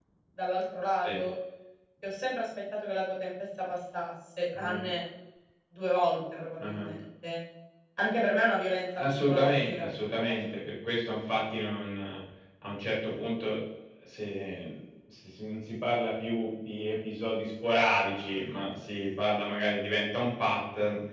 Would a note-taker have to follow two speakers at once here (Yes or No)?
Yes